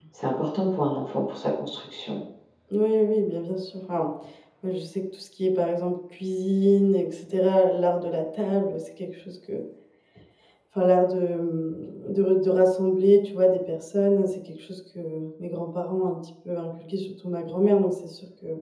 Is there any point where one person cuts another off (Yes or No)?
No